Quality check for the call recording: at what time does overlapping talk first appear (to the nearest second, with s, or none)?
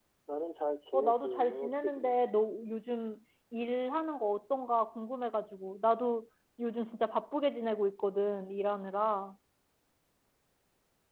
1 s